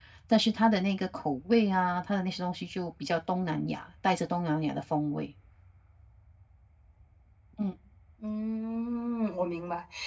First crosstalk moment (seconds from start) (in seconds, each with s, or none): none